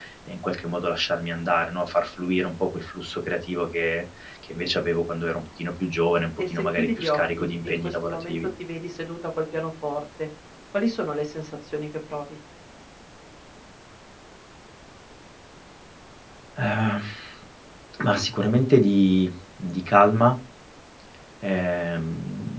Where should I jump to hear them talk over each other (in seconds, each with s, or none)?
6.4 s